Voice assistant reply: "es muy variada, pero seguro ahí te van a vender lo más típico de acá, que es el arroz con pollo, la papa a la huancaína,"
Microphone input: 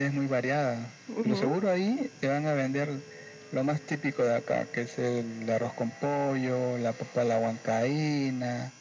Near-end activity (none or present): present